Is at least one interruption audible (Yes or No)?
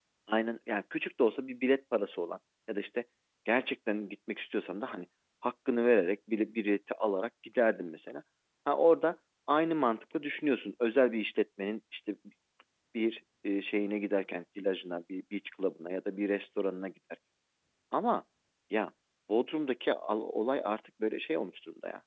No